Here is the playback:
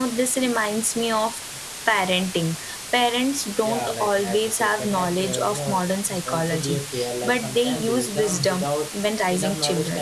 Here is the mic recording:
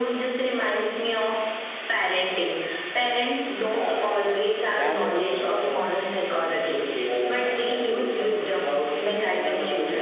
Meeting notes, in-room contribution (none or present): present